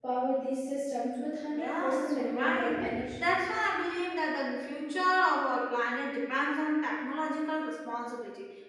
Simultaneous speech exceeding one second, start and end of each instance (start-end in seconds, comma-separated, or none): 1.6-2.8